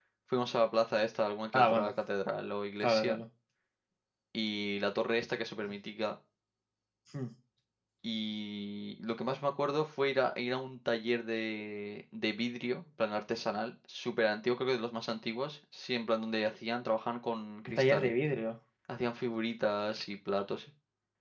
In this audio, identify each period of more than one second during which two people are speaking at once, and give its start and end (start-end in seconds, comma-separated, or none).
none